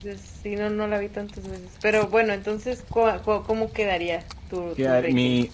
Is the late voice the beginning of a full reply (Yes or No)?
Yes